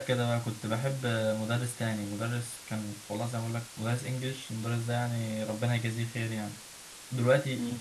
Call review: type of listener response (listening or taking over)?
listening